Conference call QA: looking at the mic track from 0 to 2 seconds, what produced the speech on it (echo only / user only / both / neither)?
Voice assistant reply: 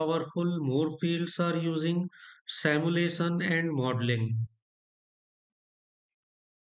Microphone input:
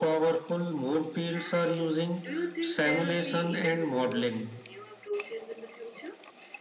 both